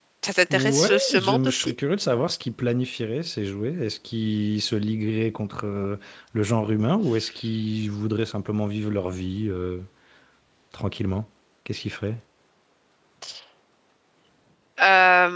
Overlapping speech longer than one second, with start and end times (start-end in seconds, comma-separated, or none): 0.5-1.7